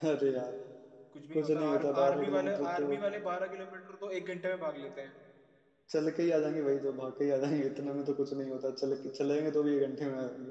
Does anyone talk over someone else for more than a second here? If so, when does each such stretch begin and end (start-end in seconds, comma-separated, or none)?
1.3-3.0